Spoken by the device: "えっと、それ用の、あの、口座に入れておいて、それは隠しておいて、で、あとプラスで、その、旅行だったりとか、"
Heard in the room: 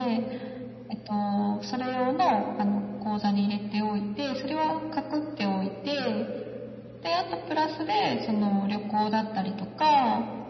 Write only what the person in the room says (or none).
none